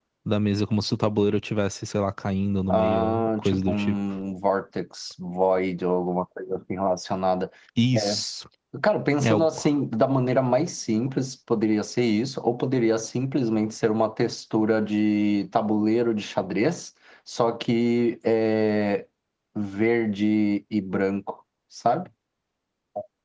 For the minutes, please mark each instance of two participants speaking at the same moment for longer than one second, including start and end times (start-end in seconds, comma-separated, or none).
2.7-4.0